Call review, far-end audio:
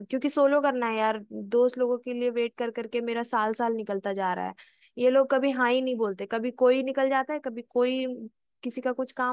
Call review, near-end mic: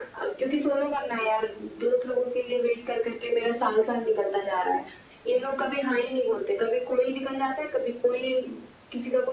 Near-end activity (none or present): none